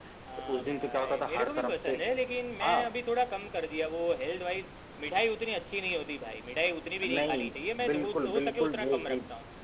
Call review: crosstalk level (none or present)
present